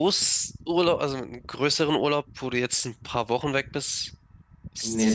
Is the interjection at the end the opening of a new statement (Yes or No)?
Yes